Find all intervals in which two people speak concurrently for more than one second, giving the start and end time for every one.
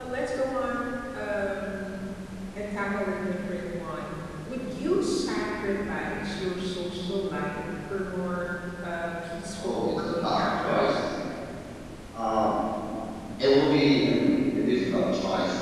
9.6-11.0

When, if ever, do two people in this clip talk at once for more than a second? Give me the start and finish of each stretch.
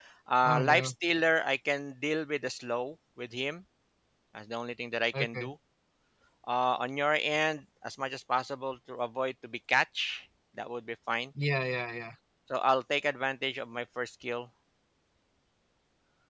none

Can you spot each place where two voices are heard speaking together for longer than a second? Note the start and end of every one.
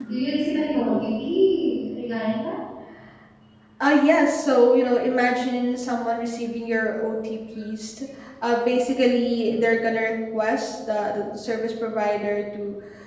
none

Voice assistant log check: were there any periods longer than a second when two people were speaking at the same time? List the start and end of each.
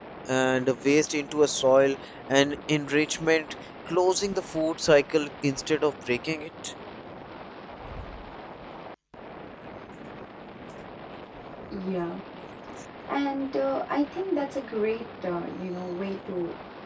none

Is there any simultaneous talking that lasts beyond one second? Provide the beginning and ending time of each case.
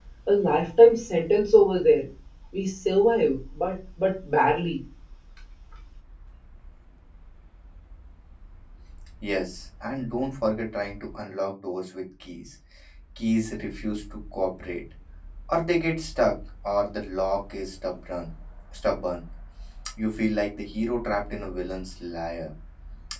none

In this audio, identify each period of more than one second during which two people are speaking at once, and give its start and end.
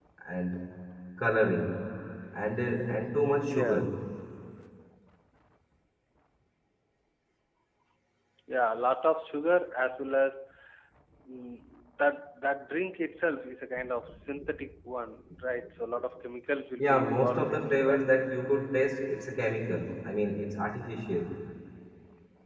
16.8-18.0

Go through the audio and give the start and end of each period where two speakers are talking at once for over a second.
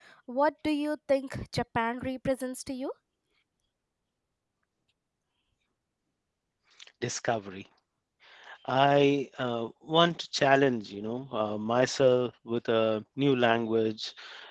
none

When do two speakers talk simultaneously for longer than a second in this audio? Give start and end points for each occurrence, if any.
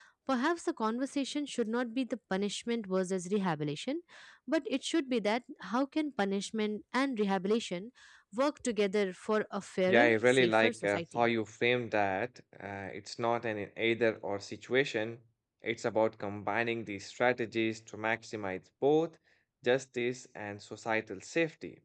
9.9-11.3

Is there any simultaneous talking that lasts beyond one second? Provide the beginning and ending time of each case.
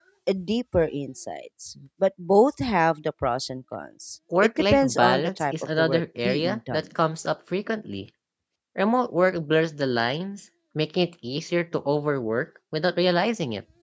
4.4-6.8

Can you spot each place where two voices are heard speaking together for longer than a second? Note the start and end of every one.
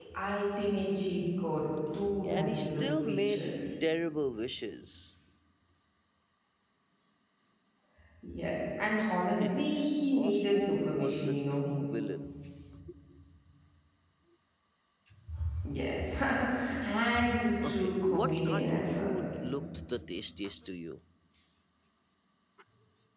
2.2-3.5, 10.1-11.7, 17.6-19.1

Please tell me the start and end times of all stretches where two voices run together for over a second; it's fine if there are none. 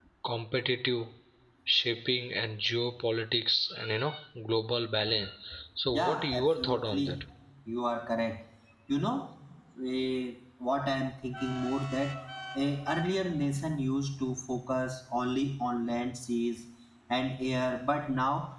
5.9-7.2

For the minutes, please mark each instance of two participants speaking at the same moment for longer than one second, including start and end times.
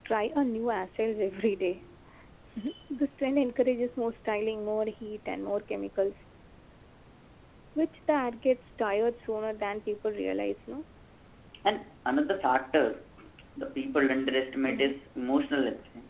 none

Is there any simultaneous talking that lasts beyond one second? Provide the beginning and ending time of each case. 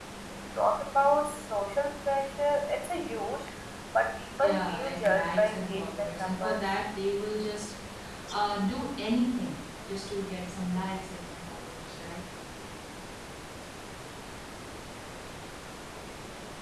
4.4-6.7

